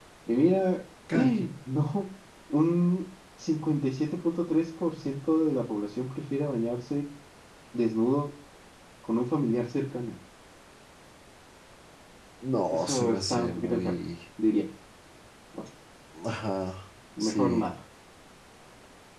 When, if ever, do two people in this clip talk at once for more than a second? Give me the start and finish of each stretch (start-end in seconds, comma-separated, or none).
12.7-14.0